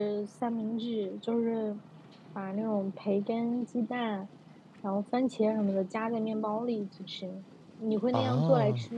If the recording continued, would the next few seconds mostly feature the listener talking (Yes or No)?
Yes